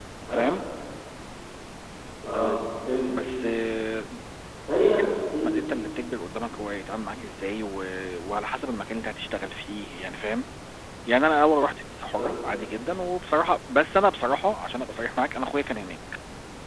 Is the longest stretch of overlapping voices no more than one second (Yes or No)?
Yes